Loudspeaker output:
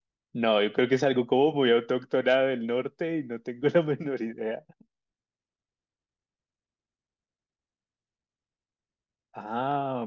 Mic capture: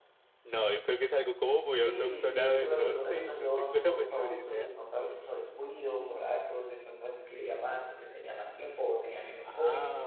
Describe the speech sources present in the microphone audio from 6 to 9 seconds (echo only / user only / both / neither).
user only